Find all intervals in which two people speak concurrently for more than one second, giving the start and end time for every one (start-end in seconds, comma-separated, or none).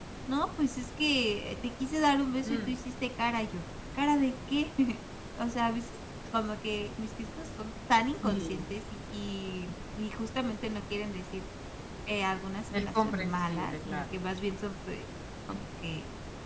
12.7-14.2